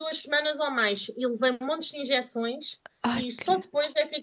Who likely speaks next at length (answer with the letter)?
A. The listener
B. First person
B